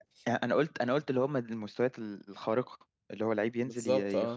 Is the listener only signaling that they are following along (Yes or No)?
Yes